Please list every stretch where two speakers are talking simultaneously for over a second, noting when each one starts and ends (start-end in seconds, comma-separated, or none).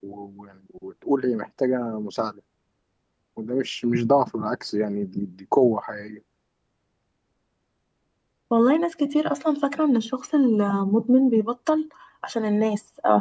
none